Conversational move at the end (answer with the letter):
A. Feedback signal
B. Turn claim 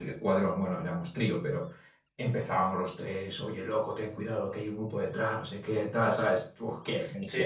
B